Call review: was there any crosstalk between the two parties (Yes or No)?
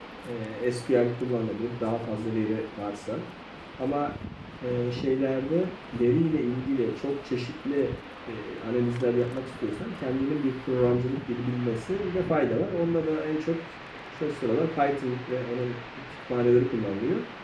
No